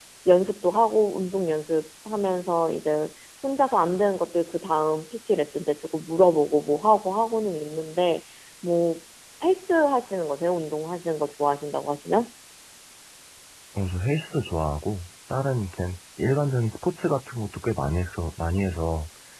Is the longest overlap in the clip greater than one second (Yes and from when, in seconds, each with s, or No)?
No